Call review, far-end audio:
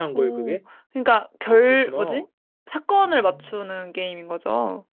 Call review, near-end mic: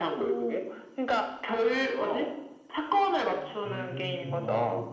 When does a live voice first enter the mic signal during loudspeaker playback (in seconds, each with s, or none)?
3.6 s